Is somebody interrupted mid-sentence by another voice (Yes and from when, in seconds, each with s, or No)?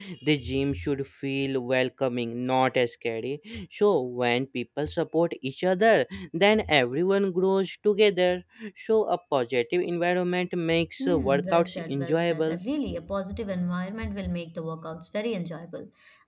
Yes, from 11.0 s